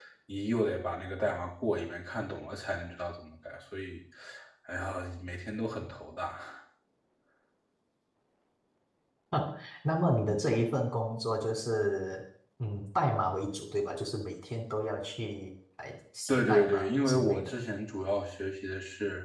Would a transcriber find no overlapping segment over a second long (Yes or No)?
No